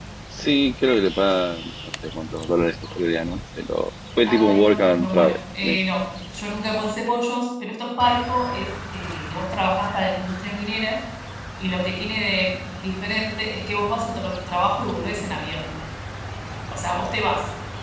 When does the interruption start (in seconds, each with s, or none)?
4.2 s